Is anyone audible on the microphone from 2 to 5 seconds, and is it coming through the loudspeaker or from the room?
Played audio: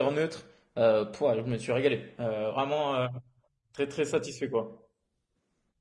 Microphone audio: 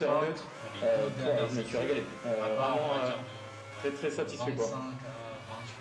both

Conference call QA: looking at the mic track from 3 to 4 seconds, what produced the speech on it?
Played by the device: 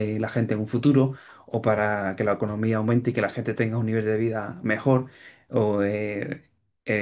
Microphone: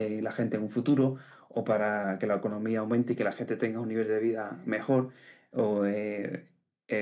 echo only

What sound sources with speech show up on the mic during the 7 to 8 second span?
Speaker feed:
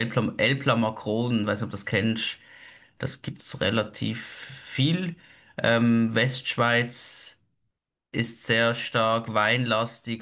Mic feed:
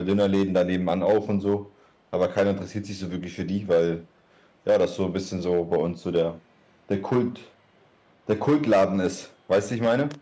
user only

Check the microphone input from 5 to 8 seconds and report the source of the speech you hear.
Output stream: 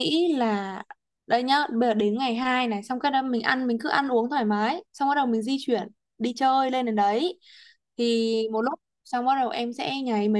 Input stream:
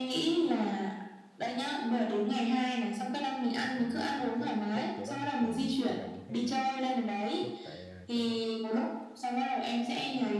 both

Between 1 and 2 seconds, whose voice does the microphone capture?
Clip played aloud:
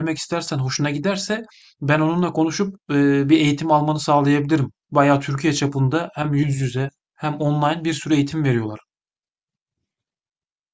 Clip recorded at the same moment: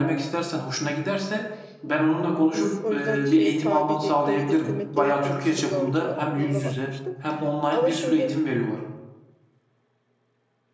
echo only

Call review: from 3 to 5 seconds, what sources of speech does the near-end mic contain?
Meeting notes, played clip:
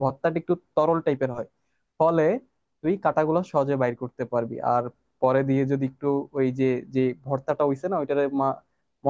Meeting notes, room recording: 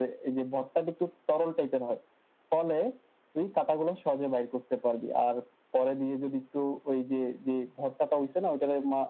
echo only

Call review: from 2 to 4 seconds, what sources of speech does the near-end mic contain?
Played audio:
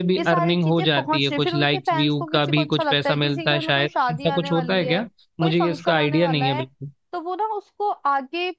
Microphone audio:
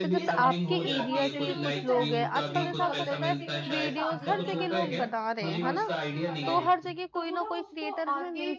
both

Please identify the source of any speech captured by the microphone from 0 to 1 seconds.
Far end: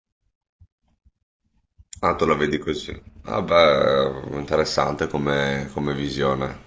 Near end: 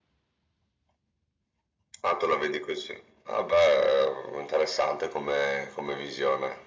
neither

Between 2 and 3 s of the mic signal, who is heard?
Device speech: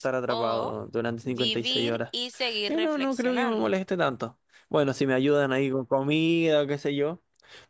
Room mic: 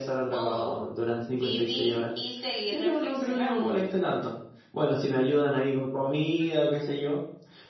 echo only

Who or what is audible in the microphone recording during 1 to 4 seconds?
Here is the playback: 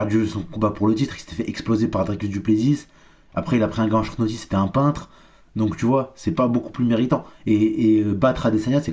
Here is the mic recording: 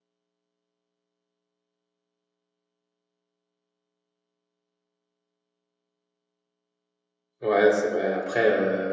neither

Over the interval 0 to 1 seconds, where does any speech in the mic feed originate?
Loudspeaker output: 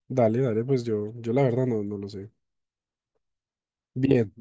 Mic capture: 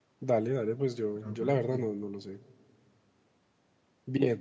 echo only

